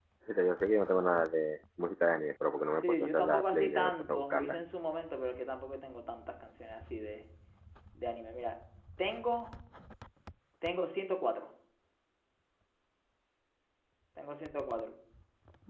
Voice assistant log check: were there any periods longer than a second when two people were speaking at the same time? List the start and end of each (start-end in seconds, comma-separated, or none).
2.8-4.6